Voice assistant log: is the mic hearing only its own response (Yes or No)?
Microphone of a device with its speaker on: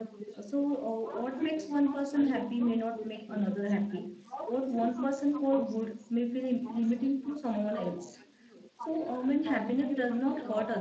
No